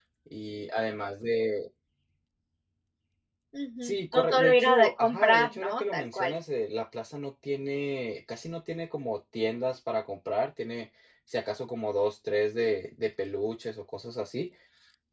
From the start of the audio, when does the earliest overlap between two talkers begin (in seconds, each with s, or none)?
3.8 s